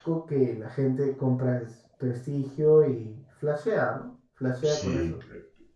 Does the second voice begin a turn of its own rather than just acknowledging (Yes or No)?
Yes